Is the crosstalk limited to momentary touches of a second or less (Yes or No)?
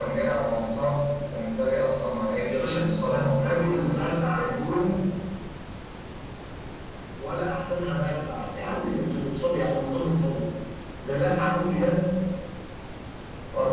No